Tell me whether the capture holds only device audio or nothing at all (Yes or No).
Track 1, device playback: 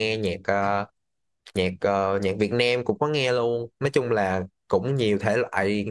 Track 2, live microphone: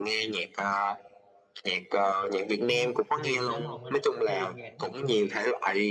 No